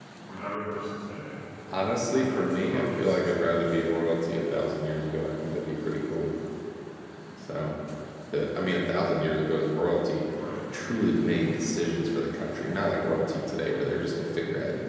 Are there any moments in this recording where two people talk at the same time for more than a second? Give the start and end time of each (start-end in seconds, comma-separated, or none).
2.1-3.3